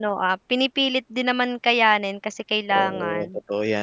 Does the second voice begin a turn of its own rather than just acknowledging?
Yes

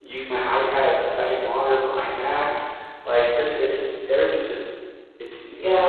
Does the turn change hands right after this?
Yes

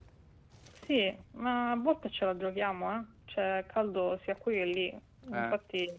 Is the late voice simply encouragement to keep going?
Yes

